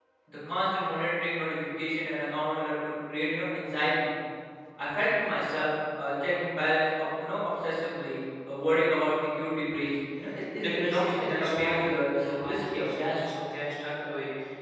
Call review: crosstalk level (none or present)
present